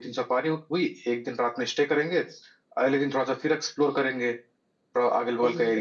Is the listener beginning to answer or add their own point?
Yes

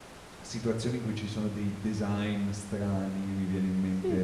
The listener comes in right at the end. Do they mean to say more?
Yes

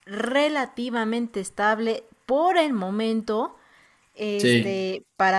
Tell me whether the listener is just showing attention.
Yes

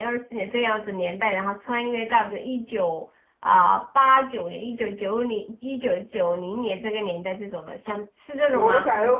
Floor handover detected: Yes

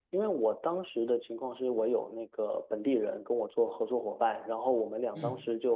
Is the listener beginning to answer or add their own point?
No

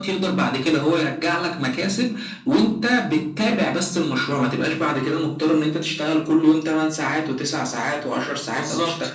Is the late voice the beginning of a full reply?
No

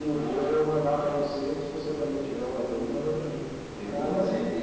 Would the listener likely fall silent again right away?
No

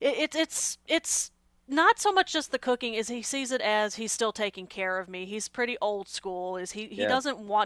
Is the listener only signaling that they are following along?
Yes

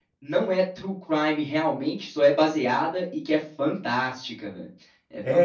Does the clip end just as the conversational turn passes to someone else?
Yes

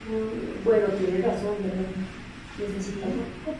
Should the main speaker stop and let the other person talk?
No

